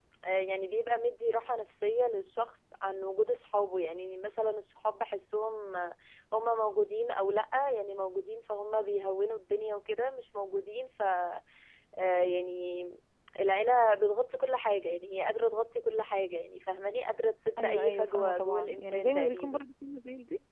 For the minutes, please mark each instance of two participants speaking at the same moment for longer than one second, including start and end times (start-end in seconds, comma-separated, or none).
17.6-19.6